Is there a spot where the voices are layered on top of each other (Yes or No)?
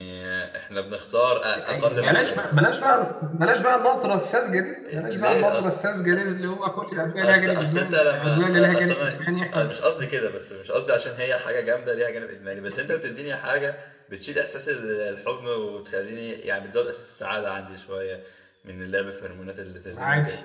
Yes